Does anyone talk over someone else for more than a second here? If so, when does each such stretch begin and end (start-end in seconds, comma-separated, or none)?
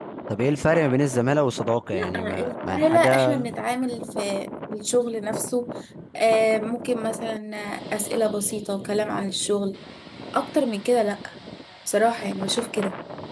1.9-3.5